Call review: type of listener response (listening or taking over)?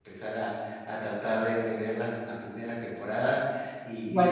listening